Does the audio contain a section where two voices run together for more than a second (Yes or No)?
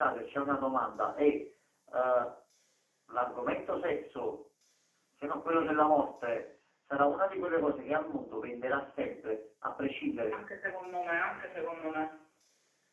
No